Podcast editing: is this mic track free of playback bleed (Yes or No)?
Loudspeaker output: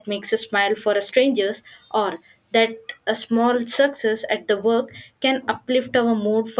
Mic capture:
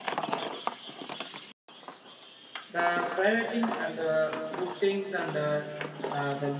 Yes